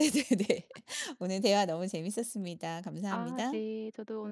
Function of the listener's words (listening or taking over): taking over